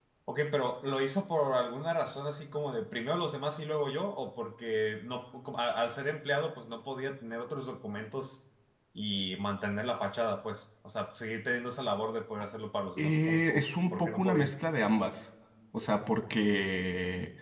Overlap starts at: 13.0 s

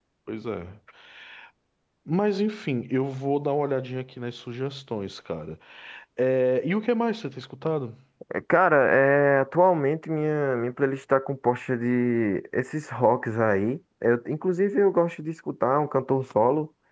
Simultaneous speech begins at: none

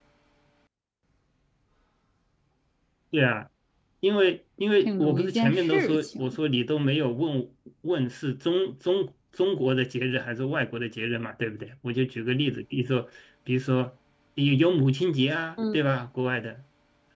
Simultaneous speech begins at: 4.8 s

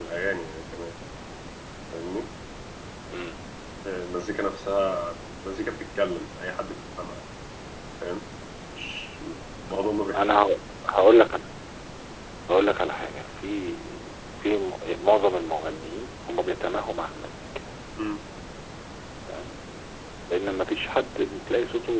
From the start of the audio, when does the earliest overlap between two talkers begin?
none

